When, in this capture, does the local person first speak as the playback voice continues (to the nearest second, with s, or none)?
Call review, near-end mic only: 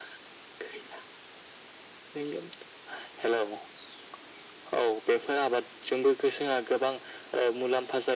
none